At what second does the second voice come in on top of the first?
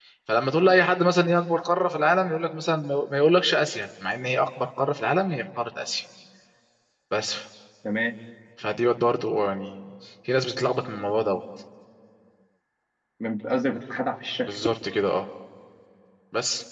none

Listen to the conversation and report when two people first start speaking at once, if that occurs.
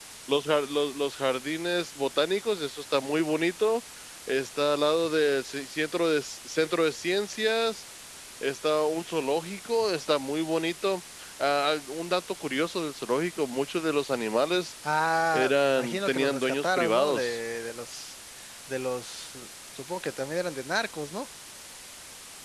15.3 s

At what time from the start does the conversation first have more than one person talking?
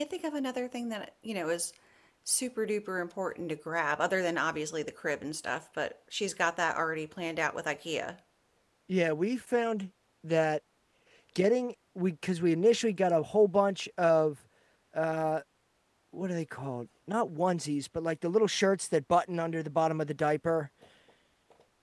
none

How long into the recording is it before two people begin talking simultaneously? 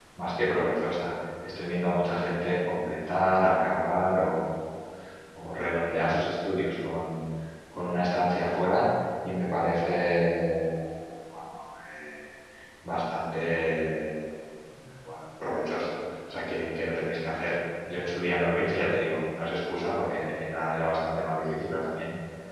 none

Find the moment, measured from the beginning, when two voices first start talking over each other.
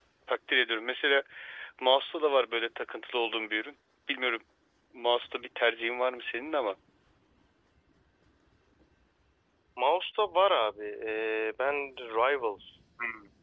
none

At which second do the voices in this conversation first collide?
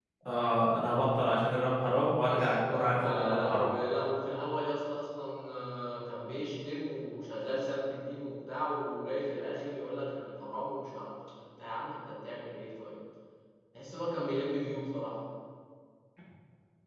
2.3 s

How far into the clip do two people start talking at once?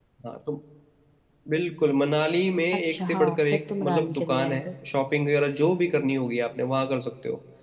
2.9 s

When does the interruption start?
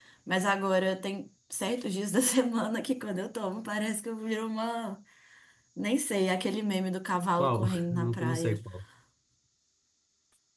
7.4 s

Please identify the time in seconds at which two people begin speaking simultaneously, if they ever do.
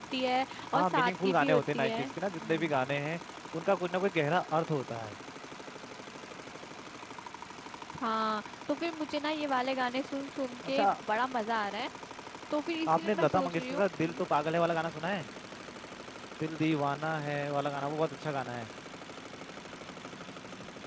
0.7 s

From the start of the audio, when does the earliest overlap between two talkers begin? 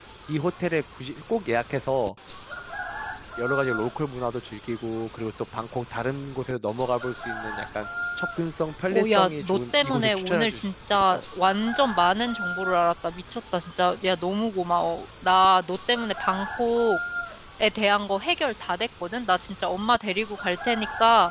8.9 s

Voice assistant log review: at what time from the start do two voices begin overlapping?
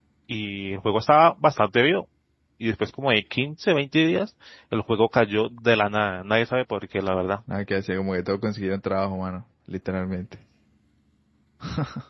none

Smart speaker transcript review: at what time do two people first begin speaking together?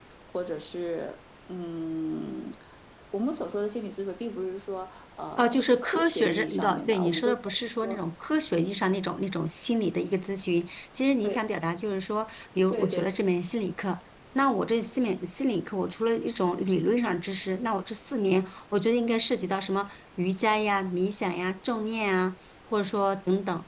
5.4 s

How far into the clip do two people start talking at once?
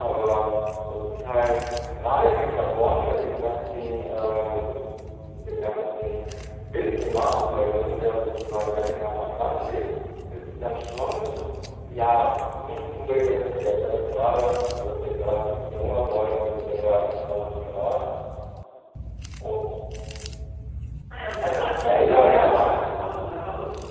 21.6 s

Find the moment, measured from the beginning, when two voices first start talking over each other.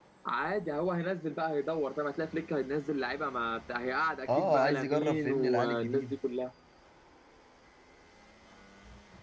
4.3 s

